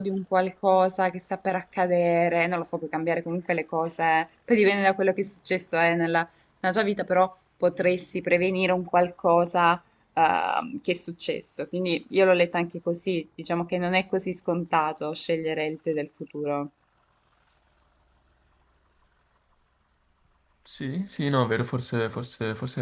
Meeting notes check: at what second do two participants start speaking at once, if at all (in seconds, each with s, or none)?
none